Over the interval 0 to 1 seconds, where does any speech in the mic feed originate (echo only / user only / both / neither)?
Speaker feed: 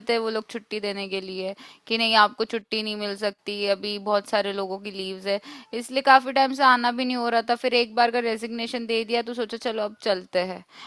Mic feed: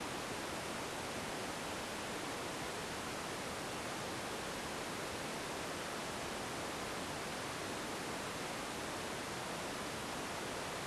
neither